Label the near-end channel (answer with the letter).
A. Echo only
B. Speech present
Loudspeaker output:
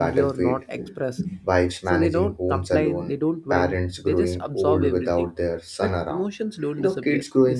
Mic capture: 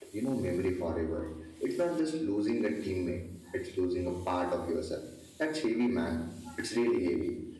B